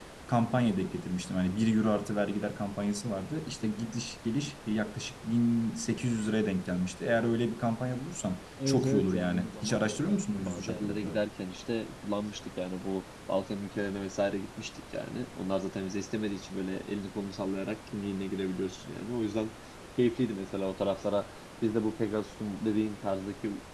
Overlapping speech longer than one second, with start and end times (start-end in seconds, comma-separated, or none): 8.7-11.2